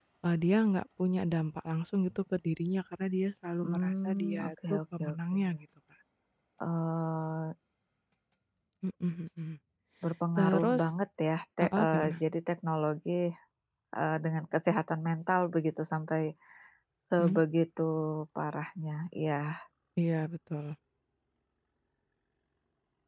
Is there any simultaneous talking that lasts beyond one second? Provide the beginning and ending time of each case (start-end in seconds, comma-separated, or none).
3.6-5.4